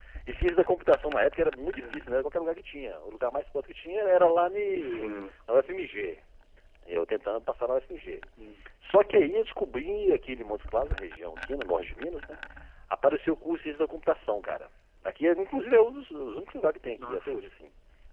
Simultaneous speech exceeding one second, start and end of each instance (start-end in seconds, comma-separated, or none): none